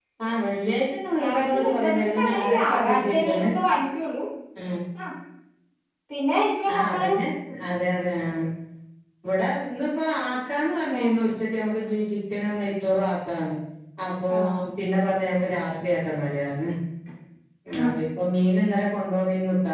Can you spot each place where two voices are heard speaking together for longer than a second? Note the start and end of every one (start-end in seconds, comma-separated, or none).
1.2-3.5